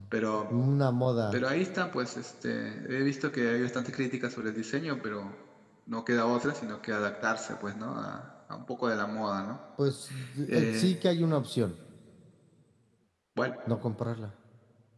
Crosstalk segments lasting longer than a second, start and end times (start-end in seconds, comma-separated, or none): none